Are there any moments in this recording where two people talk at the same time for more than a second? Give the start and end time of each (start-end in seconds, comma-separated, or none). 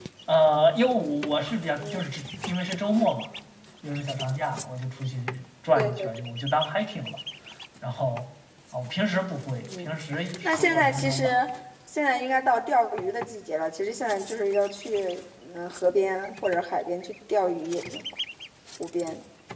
9.7-11.4